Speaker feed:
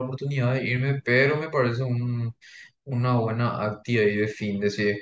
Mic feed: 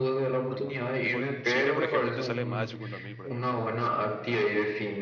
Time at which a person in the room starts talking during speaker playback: 0.5 s

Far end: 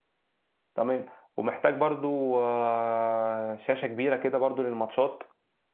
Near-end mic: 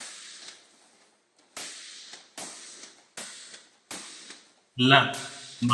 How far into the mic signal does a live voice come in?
4.8 s

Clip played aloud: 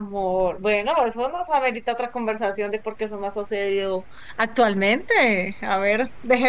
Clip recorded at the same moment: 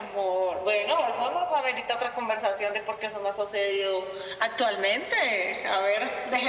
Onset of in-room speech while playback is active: none

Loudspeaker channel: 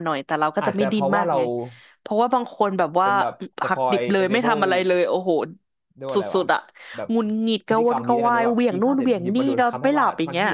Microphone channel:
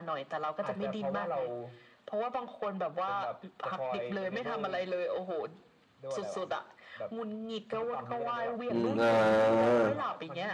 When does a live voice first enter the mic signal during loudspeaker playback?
8.7 s

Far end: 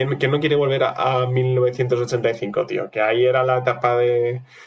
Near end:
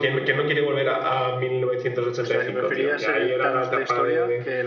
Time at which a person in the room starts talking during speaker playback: 2.2 s

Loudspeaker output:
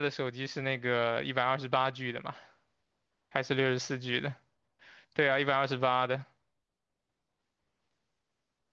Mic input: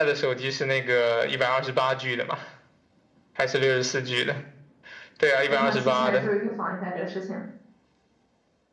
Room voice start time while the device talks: 5.4 s

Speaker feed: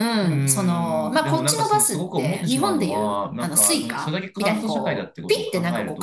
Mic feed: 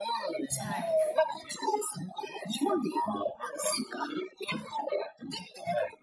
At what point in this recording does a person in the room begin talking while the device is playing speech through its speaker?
0.6 s

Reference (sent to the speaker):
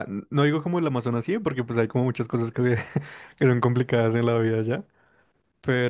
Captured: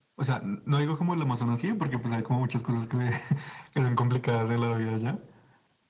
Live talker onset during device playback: none

